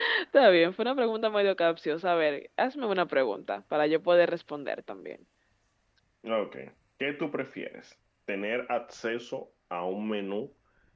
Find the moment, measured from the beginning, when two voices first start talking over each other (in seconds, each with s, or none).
none